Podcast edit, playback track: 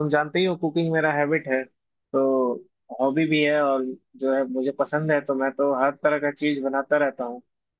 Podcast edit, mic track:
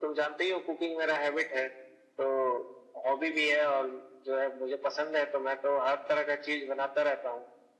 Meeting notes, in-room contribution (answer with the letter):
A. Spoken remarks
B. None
B